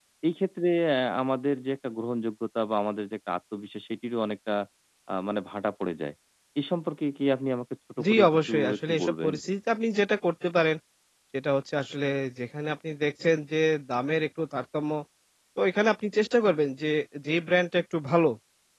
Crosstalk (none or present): present